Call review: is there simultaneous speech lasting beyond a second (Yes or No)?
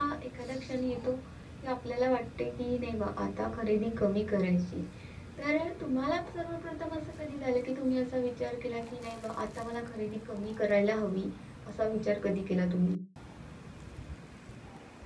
No